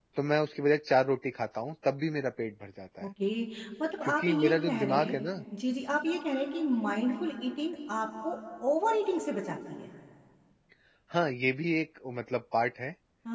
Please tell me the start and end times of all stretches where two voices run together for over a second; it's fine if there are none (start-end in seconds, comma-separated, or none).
4.0-5.2